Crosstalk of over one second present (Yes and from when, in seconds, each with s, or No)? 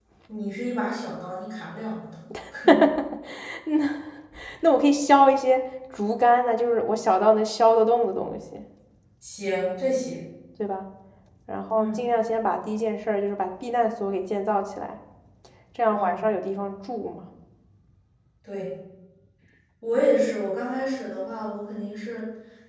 No